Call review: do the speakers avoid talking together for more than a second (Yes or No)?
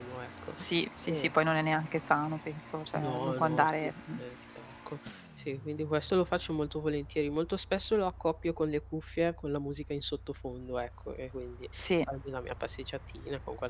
No